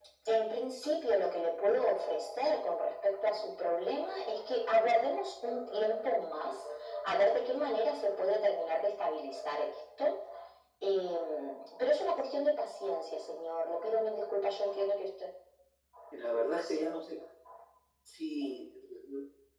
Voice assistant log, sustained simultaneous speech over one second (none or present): none